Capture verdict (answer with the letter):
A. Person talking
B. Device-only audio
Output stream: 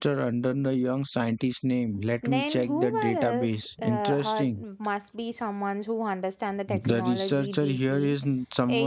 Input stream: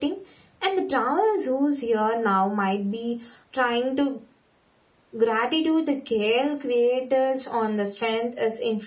A